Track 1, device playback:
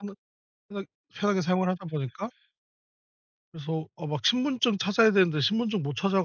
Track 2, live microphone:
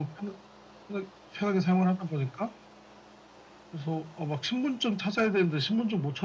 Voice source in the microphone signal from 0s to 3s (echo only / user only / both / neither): echo only